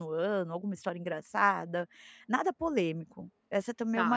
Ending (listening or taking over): taking over